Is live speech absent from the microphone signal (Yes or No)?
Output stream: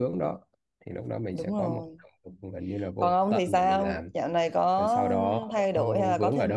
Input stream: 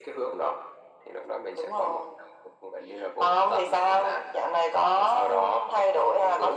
Yes